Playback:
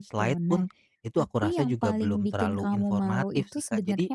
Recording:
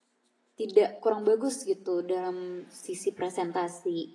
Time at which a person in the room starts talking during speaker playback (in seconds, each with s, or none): 0.6 s